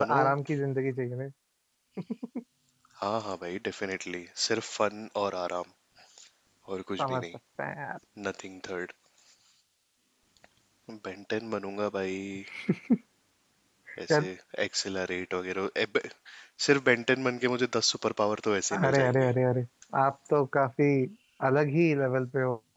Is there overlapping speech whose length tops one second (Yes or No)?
No